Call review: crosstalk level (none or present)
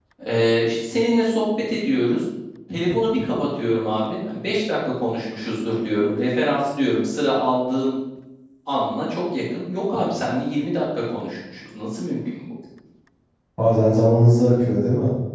none